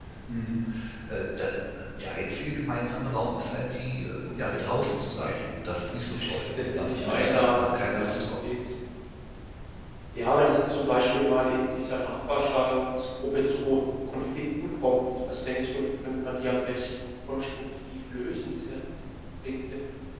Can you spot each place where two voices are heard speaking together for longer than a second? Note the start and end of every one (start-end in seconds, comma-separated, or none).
6.1-8.4